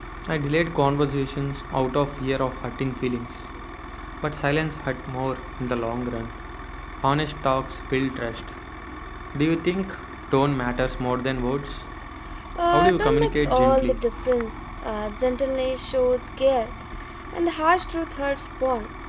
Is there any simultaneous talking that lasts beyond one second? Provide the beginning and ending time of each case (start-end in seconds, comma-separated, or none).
12.7-14.0